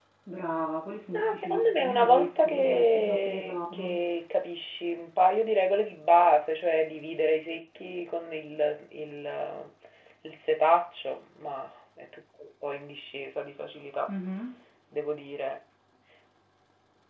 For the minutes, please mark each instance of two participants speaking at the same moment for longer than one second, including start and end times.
1.1-4.0

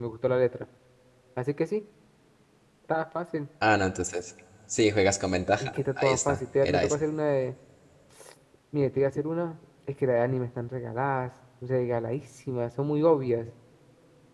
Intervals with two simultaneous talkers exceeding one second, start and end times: 5.6-7.0

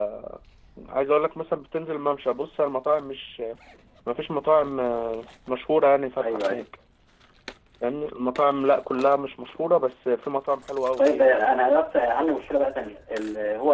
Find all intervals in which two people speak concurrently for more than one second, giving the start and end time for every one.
none

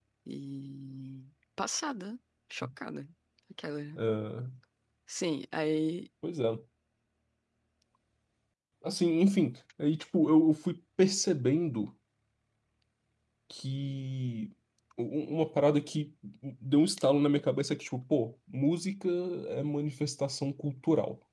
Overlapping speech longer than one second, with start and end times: none

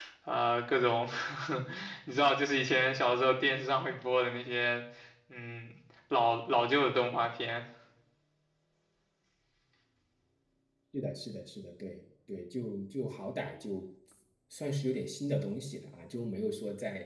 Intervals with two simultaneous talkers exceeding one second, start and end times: none

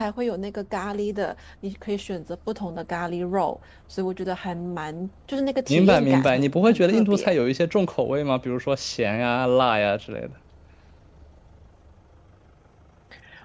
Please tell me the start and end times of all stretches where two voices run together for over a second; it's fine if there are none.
5.7-7.3

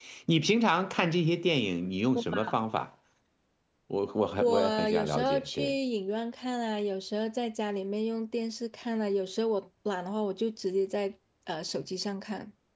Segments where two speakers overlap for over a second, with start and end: 4.4-5.7

